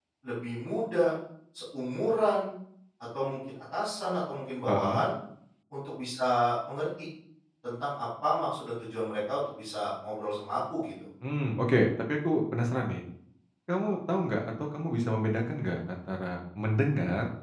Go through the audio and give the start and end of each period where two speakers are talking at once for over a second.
none

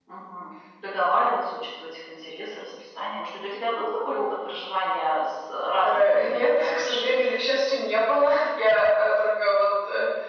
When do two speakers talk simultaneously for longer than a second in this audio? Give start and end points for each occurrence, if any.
5.8-7.2

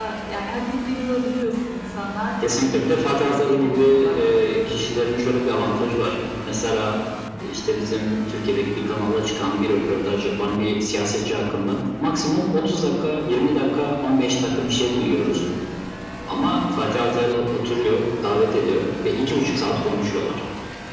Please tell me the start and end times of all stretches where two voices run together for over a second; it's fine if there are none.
2.6-4.5

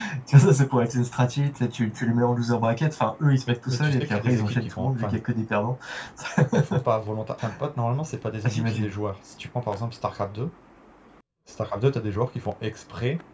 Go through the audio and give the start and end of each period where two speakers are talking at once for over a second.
3.5-5.2

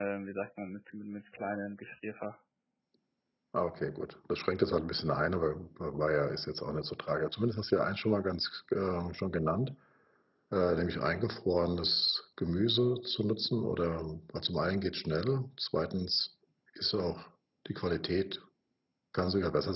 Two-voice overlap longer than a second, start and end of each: none

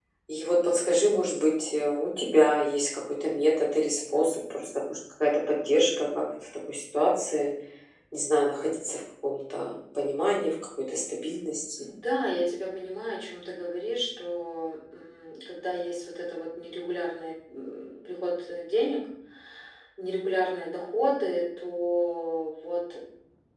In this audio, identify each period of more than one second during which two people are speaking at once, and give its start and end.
none

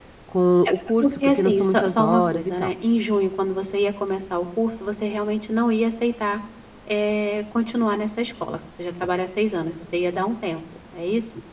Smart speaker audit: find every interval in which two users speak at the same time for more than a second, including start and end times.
0.7-2.7

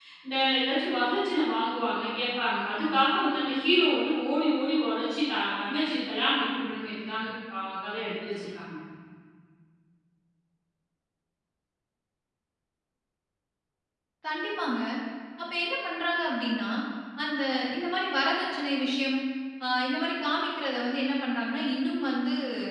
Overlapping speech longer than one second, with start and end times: none

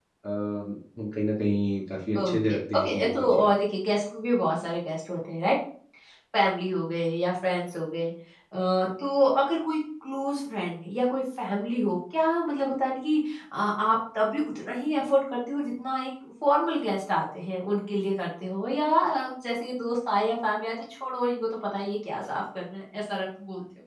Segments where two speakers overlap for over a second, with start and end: 2.2-3.5

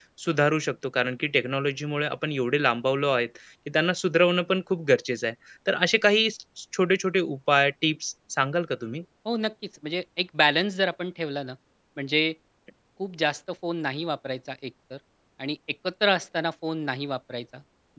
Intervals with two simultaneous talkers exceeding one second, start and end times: none

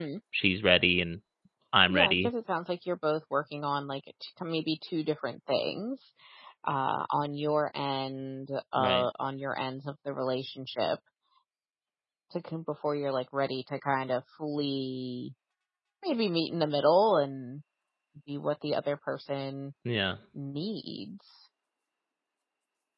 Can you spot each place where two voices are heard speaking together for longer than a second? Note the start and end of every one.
none

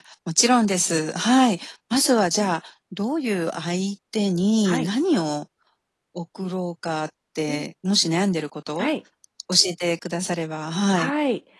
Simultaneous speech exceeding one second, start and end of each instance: none

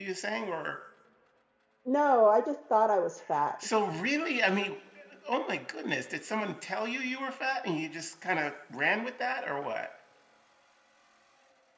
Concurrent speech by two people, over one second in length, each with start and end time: none

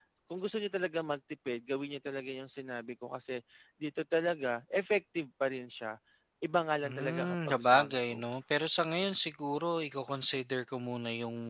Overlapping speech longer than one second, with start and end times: 6.8-8.2

